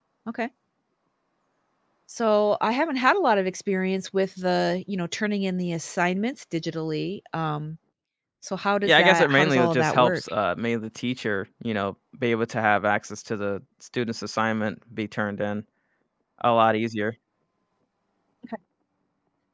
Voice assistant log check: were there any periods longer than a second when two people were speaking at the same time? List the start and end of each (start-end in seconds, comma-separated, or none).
8.8-10.2